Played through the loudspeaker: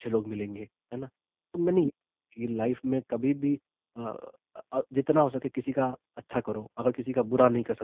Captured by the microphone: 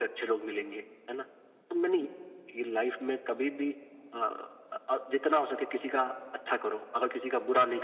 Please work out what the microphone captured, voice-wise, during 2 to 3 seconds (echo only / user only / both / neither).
echo only